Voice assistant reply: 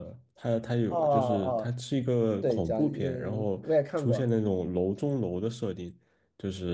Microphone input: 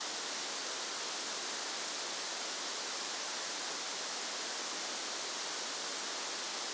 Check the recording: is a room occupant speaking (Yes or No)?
No